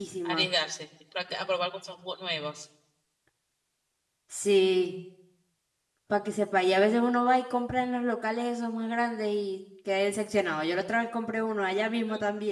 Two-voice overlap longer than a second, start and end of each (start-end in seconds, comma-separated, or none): none